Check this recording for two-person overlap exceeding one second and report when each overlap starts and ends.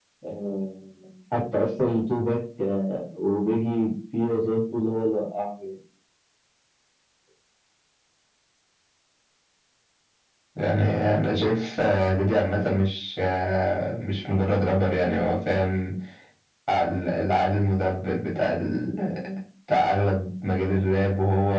none

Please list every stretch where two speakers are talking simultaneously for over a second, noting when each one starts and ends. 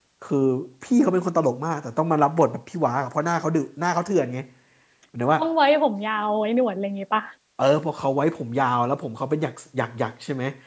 none

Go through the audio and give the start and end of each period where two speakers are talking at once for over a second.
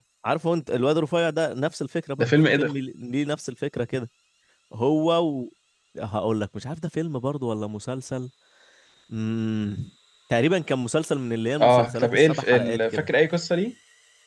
11.6-13.1

